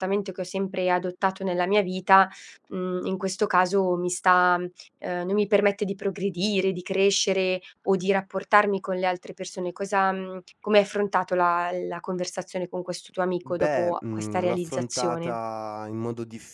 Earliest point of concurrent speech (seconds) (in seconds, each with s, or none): 13.4 s